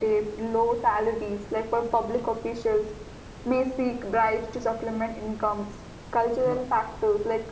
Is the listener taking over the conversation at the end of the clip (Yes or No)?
No